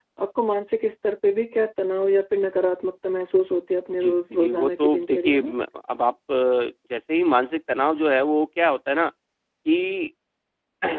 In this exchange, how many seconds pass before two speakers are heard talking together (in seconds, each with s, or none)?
3.9 s